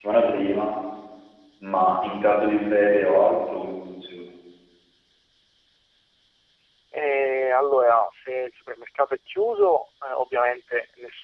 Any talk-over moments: No

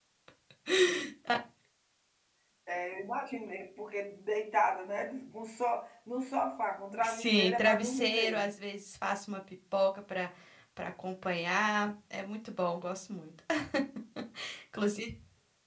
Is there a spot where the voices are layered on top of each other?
Yes, from 7.0 s

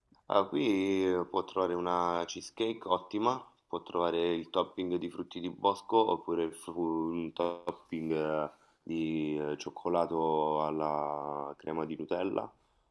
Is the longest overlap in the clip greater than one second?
No

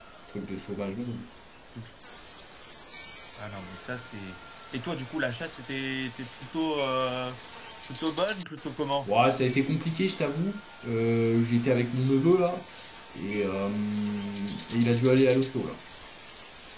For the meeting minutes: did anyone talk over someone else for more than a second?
No

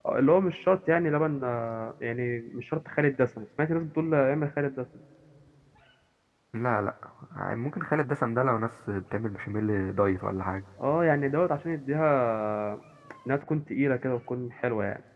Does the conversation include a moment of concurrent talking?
No

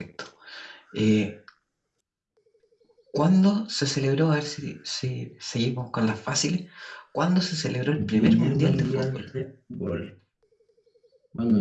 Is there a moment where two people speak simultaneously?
Yes, from 8.0 s

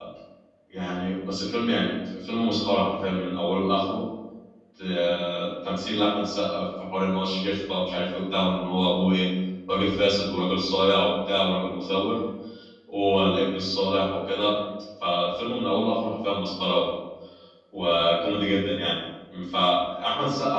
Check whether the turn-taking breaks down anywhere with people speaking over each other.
No

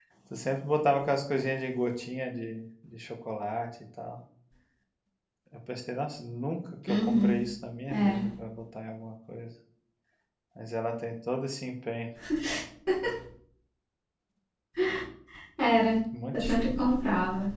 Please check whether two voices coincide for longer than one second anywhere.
No

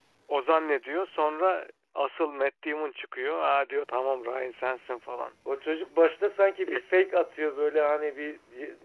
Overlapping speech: No

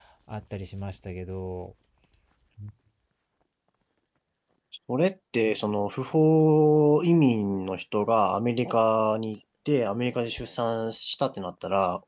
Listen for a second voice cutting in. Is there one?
No

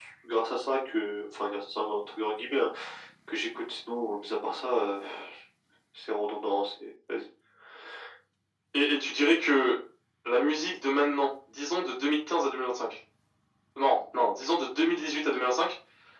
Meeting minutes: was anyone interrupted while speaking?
No

